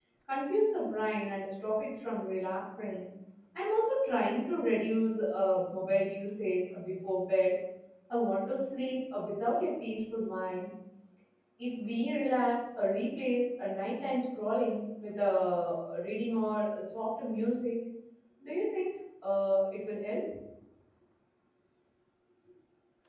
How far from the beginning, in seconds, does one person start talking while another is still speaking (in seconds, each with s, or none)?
none